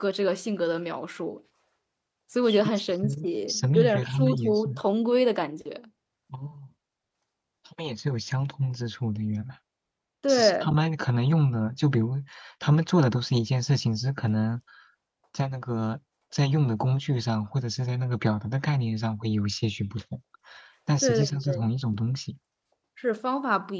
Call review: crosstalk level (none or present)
present